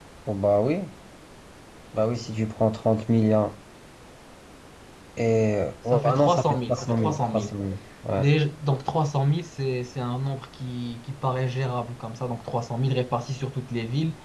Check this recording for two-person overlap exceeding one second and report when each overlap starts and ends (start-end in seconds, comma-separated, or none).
5.9-7.5